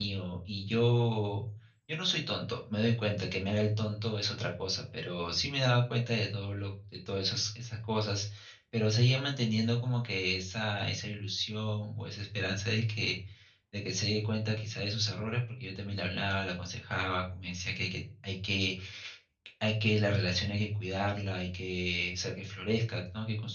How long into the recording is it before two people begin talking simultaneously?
none

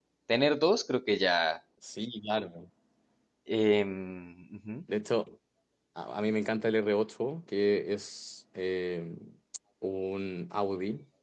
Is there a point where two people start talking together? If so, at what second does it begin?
none

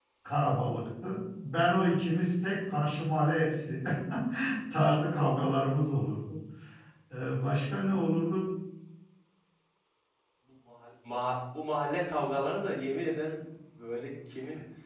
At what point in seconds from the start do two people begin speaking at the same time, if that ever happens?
none

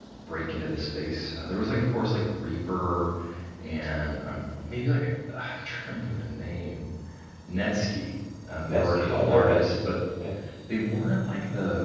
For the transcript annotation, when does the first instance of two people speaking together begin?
8.7 s

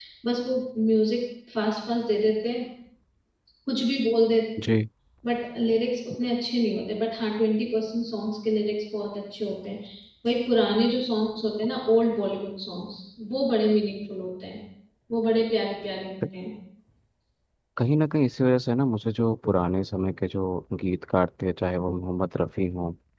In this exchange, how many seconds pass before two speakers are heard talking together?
none

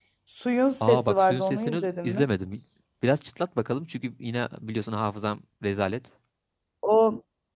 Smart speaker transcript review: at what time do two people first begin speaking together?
0.8 s

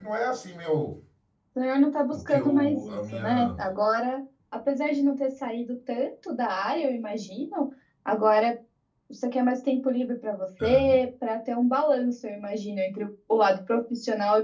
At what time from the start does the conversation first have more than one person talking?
2.1 s

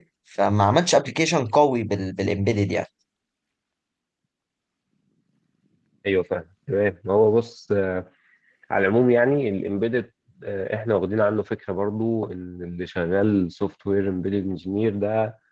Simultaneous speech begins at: none

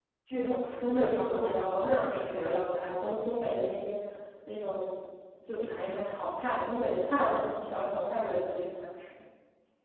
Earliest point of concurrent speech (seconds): 0.8 s

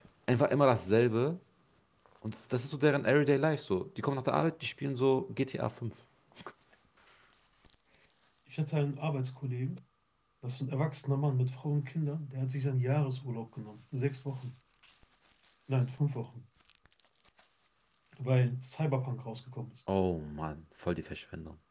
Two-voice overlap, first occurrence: none

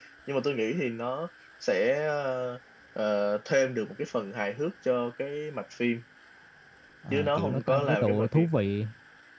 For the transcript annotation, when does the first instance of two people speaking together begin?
7.1 s

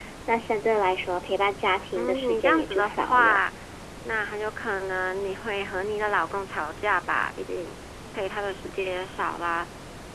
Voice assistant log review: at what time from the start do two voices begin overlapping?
1.9 s

